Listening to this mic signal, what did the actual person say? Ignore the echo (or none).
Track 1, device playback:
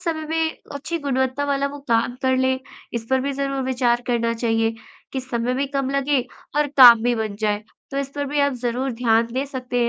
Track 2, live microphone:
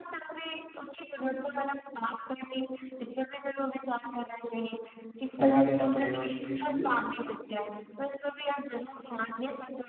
लगा देना पड़ेगा उस चीज़ के लिए।